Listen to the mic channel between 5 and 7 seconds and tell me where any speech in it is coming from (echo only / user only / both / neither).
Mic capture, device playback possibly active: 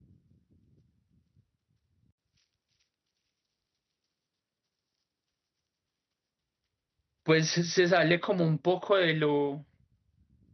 neither